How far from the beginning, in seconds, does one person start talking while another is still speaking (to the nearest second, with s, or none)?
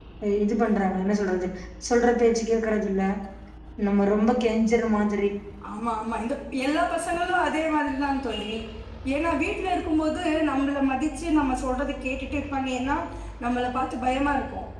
none